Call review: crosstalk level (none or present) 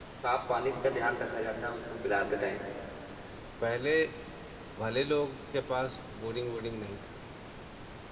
none